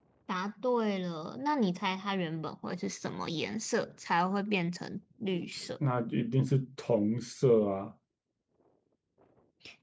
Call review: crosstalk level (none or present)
none